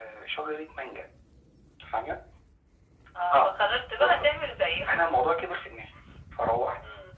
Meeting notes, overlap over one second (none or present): none